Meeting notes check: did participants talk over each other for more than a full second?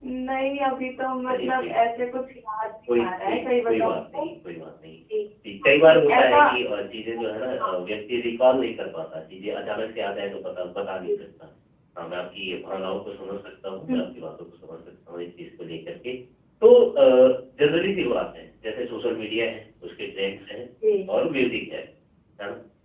Yes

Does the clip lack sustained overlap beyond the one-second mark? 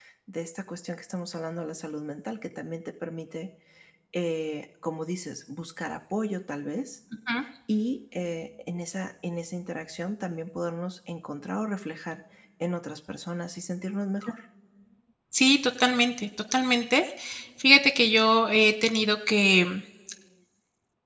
Yes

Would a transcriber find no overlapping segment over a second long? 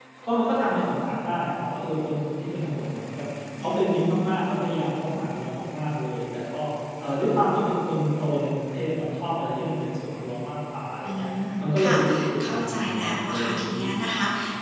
No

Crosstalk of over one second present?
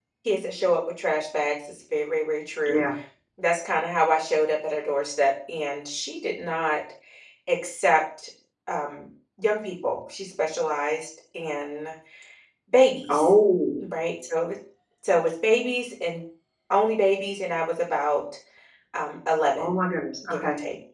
No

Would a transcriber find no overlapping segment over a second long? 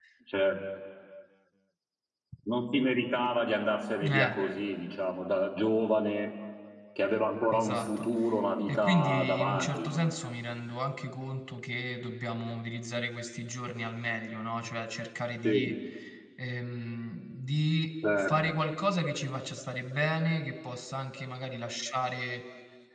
No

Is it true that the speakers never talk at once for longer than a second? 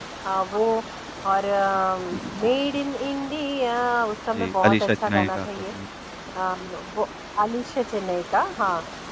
No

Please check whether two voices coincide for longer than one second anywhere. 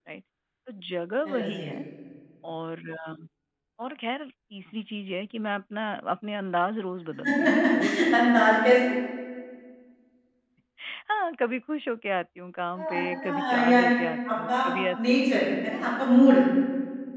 Yes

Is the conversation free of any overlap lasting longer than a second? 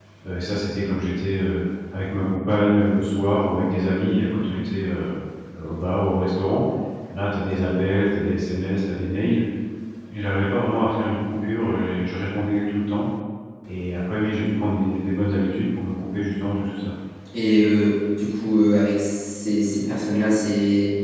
Yes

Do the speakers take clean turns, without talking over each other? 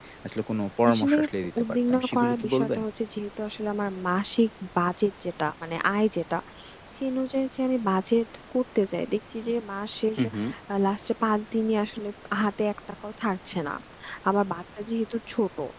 No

